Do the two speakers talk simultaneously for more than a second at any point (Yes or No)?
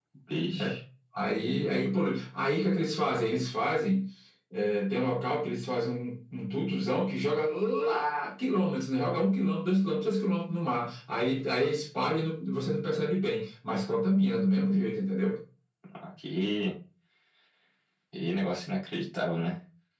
No